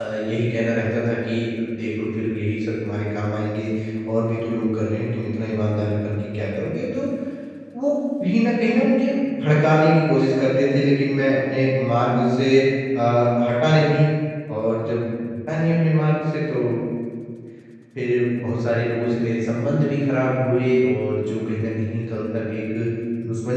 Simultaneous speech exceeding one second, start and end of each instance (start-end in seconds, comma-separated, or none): none